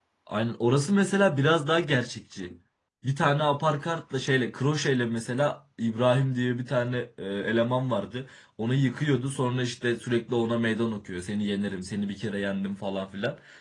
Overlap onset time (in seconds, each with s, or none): none